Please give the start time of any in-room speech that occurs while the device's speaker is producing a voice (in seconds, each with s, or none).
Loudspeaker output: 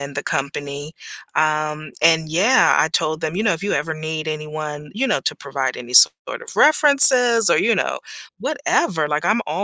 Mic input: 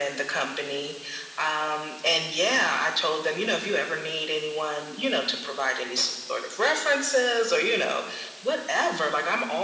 none